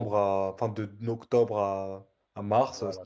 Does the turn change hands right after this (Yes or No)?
Yes